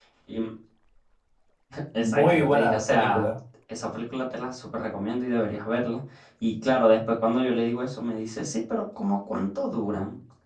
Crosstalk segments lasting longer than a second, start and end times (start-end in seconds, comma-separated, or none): 1.9-3.3